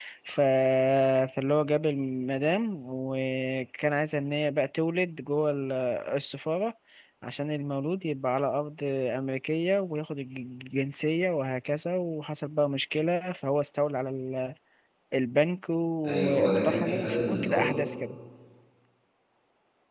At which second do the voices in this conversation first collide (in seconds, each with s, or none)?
16.0 s